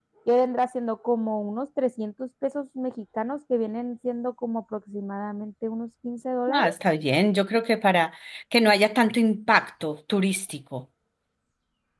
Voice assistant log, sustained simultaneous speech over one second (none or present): none